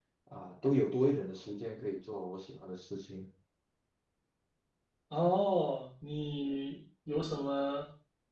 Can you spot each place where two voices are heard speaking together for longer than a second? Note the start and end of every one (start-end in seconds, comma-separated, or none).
none